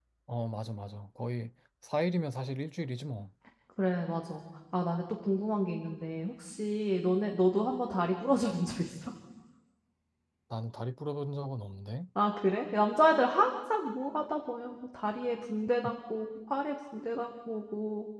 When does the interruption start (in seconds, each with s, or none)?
none